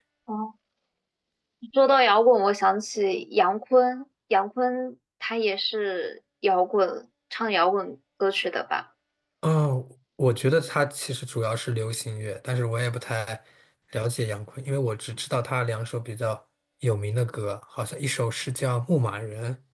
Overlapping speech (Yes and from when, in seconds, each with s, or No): No